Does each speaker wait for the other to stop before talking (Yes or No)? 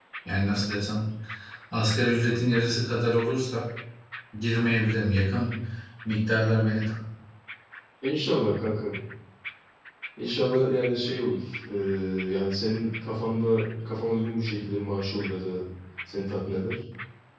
Yes